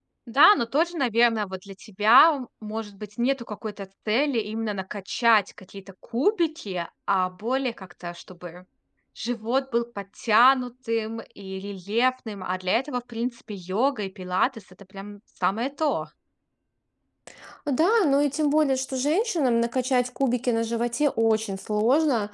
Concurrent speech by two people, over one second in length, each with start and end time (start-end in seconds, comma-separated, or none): none